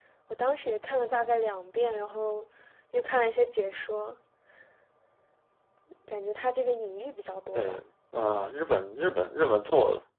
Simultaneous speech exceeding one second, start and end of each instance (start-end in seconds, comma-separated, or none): none